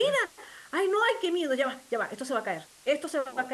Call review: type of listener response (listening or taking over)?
listening